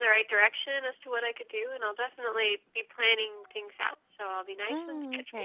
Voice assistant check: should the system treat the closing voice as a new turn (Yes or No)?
Yes